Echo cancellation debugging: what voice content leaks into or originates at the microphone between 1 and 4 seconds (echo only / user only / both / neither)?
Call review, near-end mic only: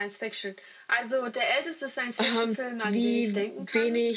both